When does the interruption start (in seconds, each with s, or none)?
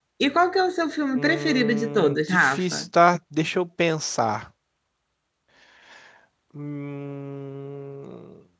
1.2 s